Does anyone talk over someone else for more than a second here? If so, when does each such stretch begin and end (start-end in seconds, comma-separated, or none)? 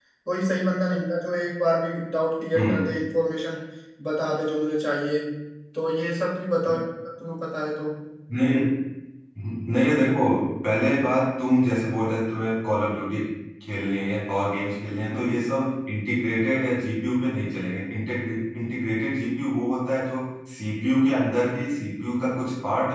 none